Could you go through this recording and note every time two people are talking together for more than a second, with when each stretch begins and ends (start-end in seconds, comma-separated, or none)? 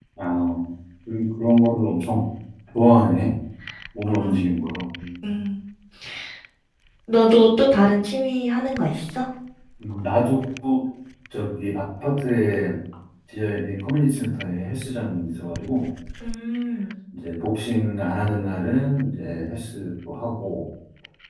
none